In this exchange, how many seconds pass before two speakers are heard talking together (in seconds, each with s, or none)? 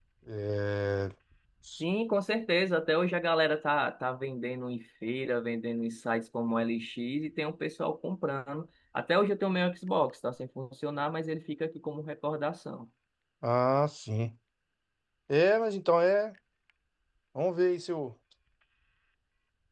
none